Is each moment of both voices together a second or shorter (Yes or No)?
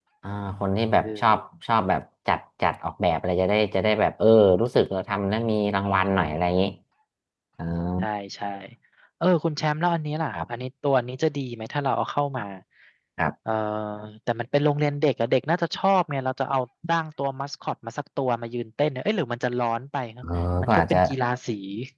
Yes